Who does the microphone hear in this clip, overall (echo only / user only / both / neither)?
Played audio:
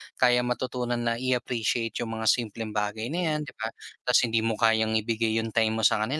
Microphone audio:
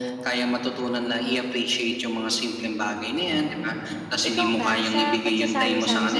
both